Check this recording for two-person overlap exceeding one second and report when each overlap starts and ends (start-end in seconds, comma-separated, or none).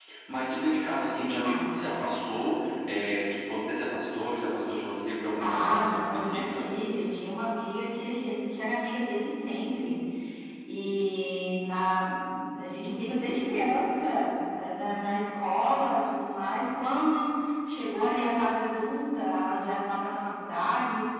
5.4-6.7